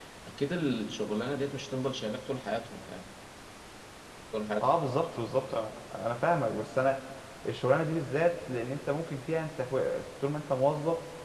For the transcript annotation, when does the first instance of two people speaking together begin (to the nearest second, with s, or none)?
none